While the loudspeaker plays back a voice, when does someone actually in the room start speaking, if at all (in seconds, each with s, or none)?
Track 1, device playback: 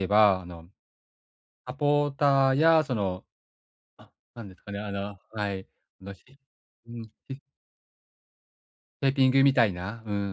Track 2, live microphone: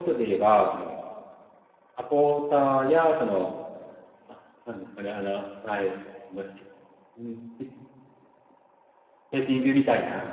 none